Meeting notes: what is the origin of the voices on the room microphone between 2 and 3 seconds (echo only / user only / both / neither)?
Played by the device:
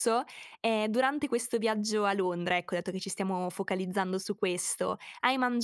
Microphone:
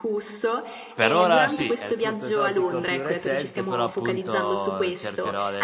both